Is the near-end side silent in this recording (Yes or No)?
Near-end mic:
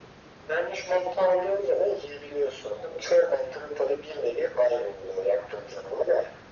Yes